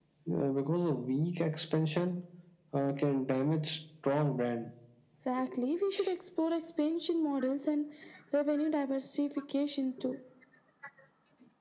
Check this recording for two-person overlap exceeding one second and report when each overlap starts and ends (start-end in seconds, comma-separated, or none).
none